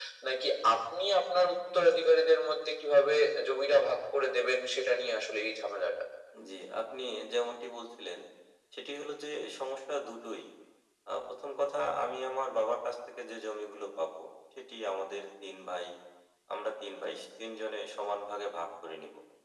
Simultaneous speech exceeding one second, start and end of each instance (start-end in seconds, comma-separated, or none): none